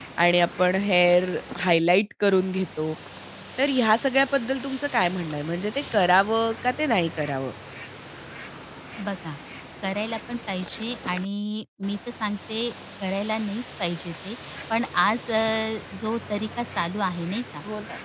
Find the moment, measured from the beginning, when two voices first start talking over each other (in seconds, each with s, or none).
none